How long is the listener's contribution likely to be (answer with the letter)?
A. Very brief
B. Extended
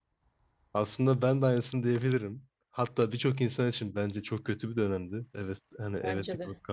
A